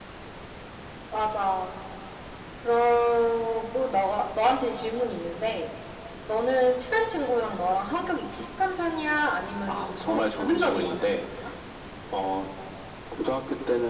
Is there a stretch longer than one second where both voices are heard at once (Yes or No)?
Yes